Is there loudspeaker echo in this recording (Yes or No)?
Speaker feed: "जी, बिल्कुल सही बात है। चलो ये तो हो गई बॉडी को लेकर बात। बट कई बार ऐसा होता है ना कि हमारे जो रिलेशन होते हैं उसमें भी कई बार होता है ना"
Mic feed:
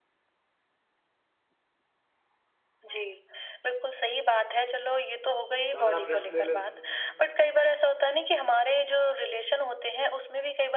Yes